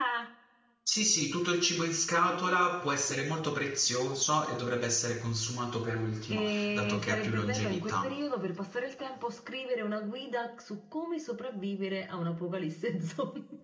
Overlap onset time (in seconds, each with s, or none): 6.3 s